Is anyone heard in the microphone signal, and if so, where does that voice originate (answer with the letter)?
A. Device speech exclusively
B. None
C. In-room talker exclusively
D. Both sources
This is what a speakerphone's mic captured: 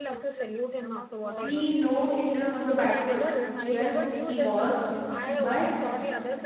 D